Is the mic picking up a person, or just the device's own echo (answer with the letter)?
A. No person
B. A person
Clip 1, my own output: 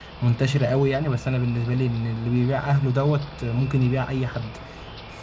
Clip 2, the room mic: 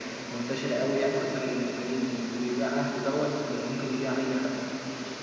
A